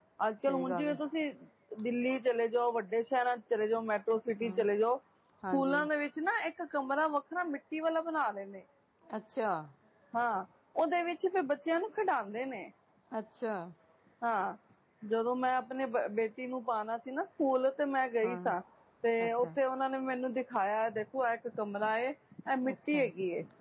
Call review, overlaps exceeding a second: none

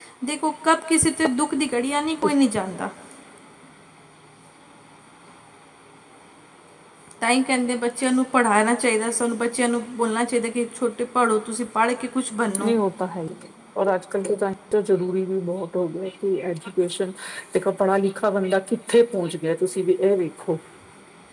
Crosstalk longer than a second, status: none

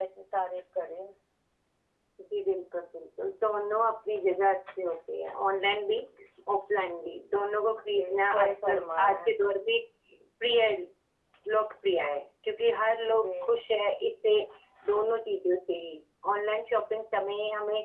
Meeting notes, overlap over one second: present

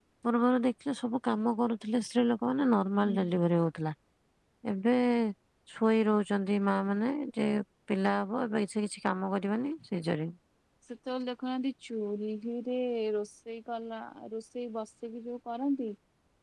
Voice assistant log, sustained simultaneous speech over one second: none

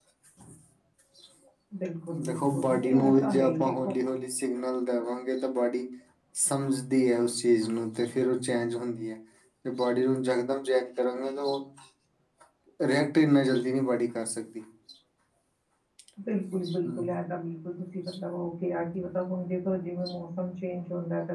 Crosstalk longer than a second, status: present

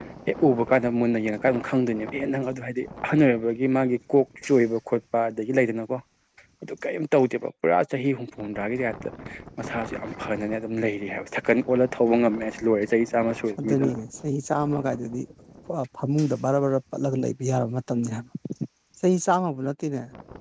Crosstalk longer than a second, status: none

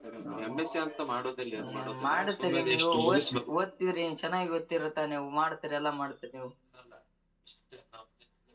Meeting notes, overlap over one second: present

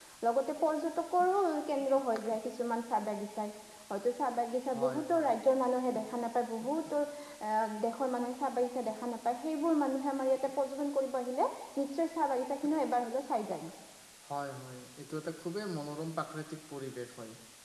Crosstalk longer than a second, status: none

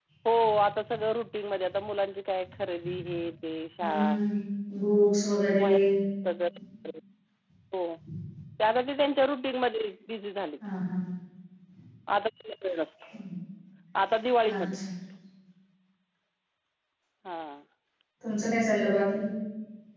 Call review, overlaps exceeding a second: none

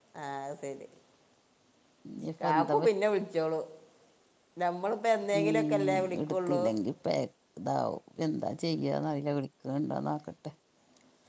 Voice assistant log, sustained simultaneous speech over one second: present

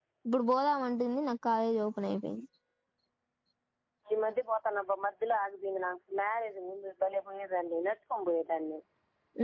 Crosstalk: none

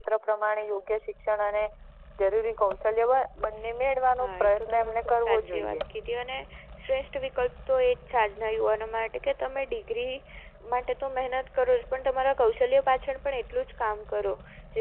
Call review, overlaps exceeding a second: present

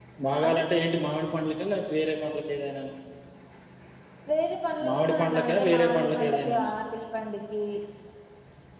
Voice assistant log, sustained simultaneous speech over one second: present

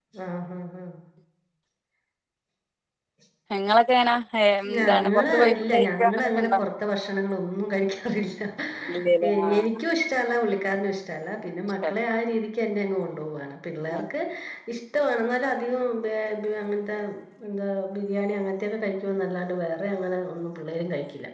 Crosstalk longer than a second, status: present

